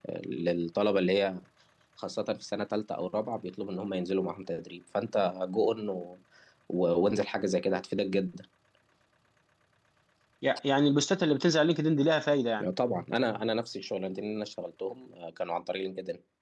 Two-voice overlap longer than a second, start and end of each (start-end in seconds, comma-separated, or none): none